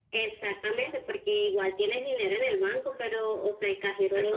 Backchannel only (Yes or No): Yes